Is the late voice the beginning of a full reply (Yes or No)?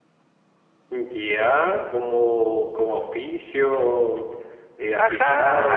Yes